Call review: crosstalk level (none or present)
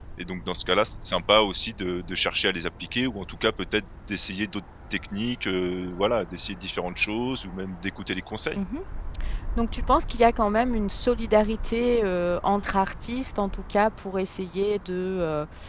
none